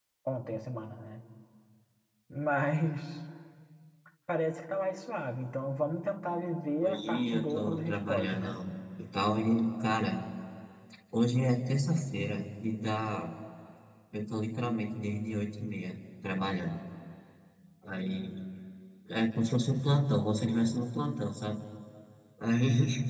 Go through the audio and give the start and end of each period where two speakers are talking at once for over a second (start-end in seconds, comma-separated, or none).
6.8-8.6